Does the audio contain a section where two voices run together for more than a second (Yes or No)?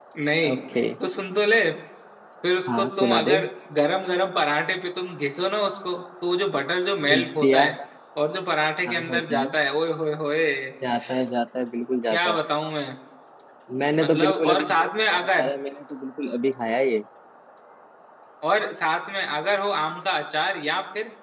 Yes